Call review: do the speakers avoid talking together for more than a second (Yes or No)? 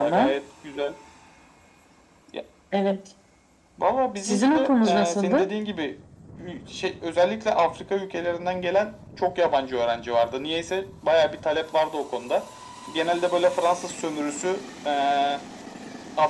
No